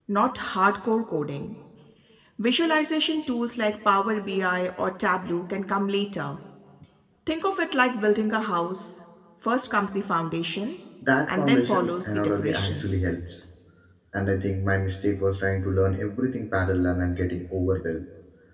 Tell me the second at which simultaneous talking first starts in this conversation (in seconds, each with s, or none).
11.3 s